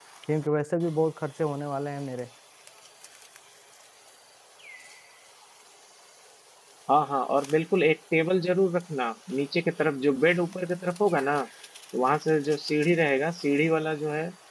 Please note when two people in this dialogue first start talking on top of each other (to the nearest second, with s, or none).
none